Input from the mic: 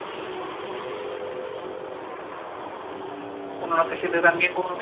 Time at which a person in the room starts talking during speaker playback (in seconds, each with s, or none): 3.6 s